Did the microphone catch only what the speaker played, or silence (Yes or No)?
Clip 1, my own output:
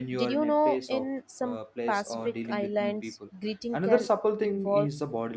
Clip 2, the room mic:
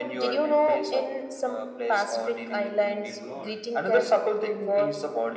No